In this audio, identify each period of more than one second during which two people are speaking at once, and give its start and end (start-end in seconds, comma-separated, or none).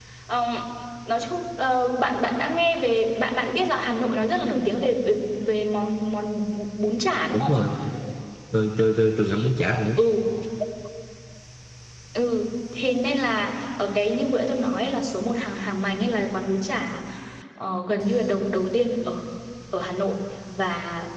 none